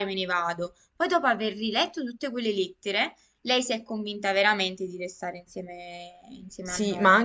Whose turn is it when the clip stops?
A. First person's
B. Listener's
B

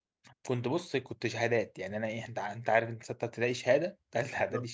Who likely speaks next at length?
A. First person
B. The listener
B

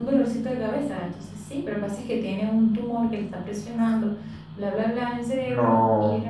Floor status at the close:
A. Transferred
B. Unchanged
B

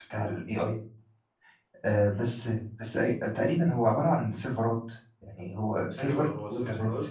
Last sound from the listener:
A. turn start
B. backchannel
A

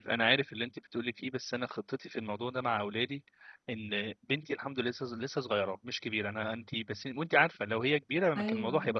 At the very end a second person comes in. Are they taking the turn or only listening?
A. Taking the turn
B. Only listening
B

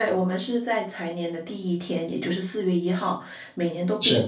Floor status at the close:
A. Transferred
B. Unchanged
B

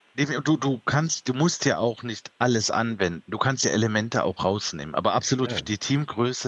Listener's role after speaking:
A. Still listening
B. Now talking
A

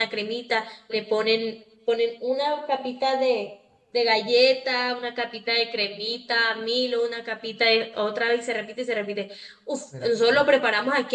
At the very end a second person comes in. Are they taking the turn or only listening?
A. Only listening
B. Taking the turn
A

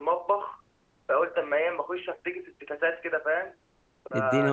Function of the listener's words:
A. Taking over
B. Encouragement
A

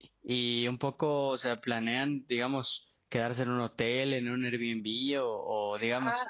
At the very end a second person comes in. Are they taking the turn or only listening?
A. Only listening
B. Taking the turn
A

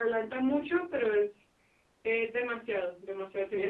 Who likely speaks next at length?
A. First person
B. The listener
B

